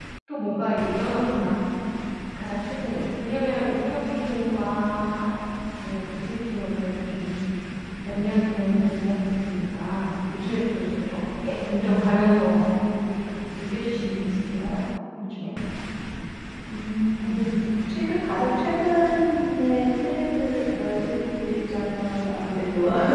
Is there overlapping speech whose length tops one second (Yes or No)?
No